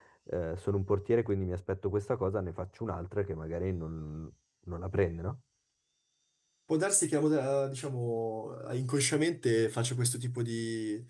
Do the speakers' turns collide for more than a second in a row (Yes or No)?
No